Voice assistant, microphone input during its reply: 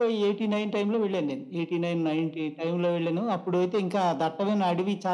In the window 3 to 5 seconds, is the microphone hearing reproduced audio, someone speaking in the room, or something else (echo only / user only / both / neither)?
echo only